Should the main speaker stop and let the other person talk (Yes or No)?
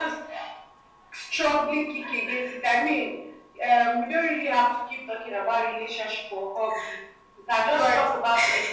No